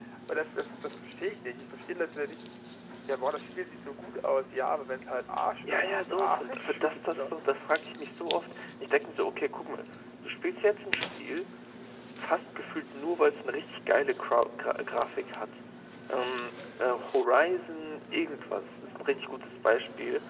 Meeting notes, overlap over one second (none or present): present